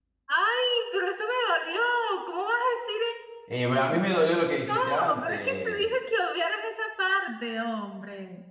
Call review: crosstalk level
present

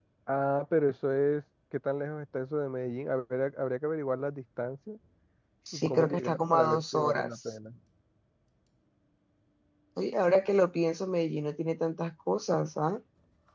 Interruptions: present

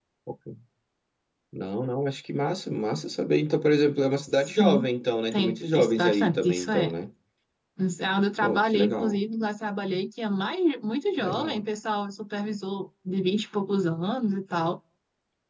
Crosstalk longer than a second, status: present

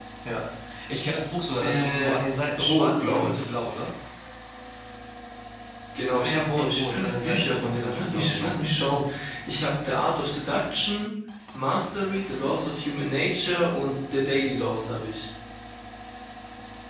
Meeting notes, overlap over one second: present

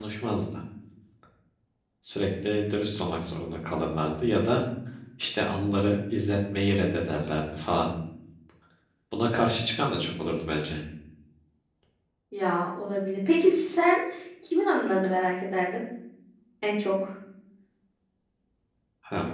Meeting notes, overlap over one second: none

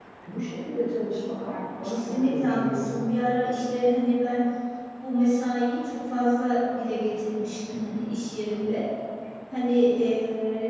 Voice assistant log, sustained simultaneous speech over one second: present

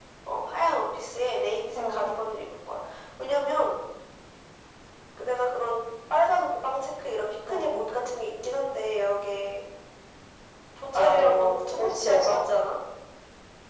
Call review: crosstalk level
present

